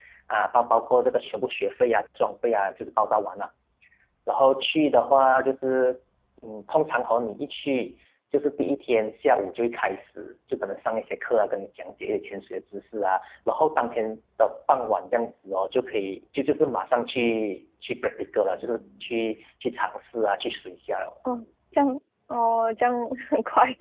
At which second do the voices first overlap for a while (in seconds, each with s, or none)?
none